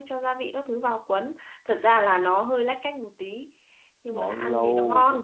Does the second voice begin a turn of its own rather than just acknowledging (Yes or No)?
Yes